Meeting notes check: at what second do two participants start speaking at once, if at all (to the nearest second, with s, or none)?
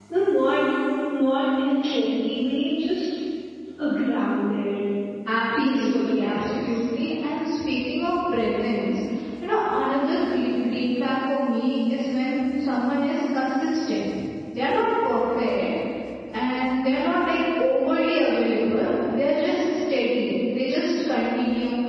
6 s